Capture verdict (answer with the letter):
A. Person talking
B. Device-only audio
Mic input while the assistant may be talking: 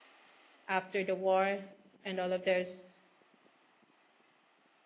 A